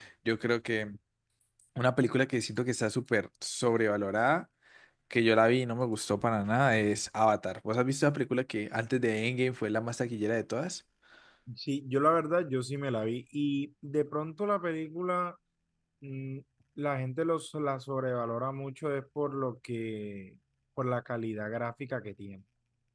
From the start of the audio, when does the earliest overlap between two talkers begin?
none

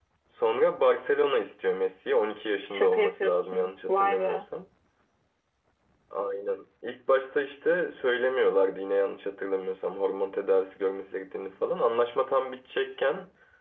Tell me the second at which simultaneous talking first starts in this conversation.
2.7 s

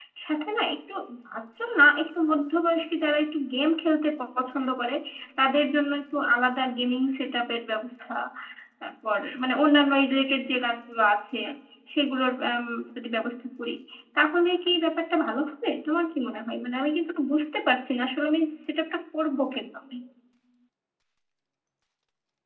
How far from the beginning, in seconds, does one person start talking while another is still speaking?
none

